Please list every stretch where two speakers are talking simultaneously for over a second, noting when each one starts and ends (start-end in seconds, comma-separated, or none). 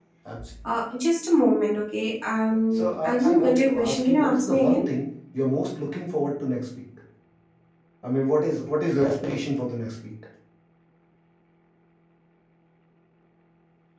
2.7-4.8